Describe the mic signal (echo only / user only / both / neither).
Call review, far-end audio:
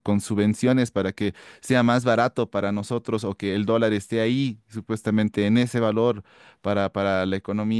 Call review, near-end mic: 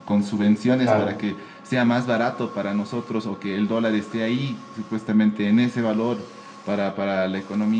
both